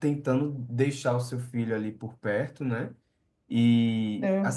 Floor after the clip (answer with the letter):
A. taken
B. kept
B